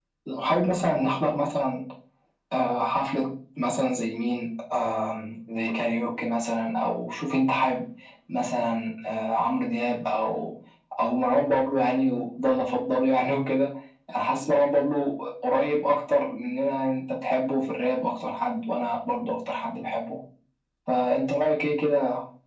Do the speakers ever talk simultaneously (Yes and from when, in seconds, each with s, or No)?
No